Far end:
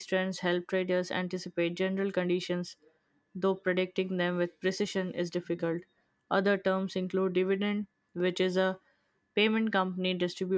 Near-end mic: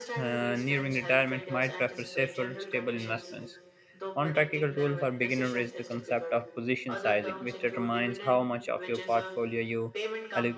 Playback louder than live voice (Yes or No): No